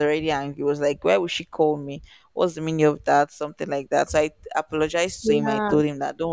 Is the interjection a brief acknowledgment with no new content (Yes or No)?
Yes